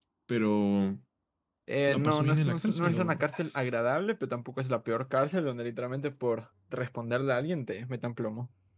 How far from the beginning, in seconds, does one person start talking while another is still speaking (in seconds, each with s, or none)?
1.9 s